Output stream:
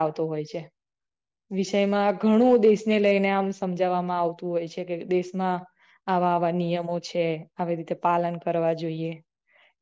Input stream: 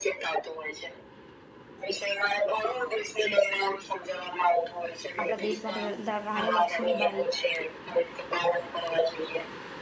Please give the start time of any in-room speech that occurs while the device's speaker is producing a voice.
5 s

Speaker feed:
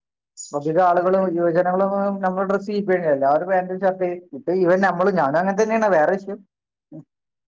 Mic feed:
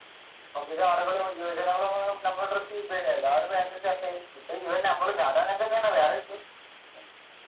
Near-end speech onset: none

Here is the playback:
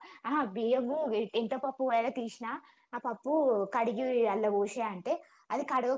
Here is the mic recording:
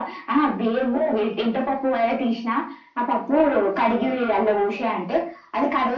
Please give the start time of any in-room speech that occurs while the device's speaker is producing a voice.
none

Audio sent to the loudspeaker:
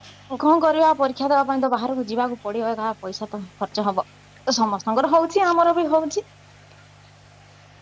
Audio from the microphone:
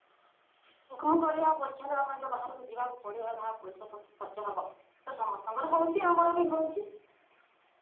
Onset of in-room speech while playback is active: none

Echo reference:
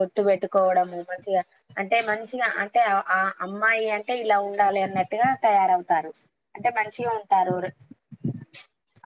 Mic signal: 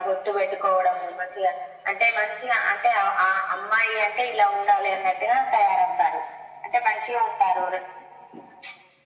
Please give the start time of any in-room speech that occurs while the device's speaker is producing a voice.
none

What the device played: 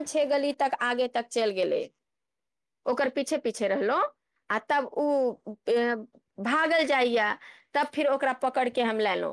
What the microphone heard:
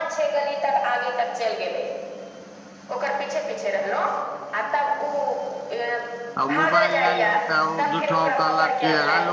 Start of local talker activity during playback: 6 s

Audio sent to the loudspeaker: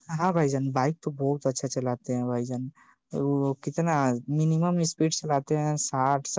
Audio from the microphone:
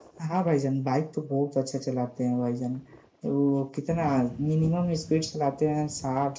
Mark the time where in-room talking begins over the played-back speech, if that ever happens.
none

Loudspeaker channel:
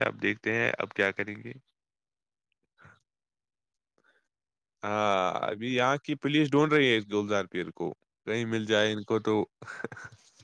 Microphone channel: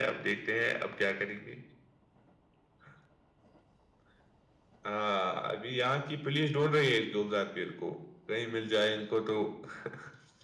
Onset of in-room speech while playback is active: none

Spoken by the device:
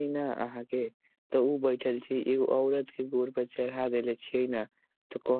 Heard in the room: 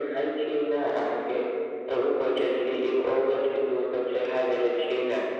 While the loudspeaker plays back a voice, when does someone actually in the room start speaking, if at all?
none

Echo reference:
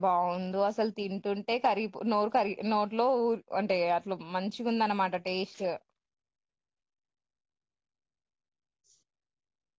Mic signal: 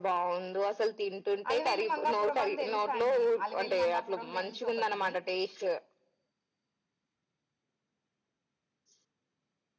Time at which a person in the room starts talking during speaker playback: 2 s

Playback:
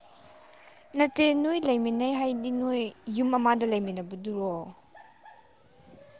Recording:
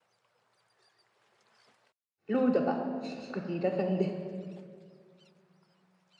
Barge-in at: 2 s

